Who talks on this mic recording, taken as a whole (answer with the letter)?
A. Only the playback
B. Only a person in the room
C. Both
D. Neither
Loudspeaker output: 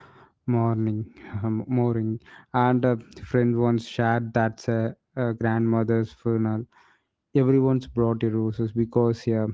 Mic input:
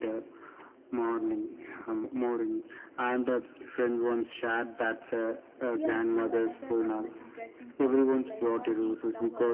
C